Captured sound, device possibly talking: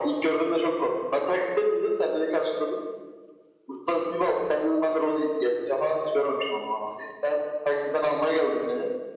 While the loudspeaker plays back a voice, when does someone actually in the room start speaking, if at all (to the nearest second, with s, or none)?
none